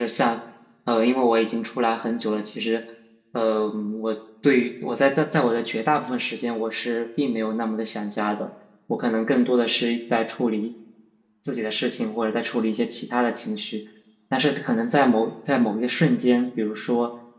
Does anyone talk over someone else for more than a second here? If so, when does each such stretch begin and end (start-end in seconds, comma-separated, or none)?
none